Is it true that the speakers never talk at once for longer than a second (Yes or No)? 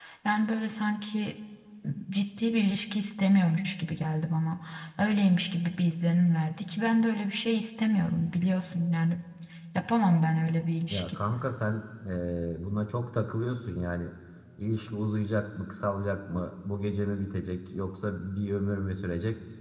Yes